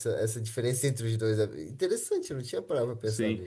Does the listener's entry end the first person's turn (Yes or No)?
Yes